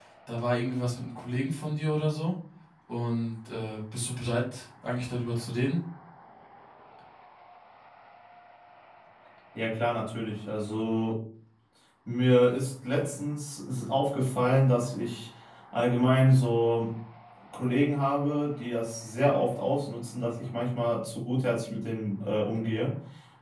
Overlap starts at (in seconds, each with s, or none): none